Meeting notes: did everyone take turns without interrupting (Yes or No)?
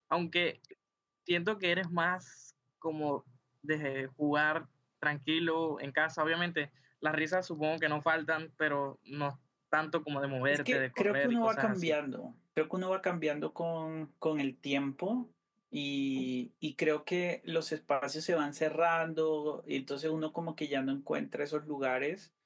No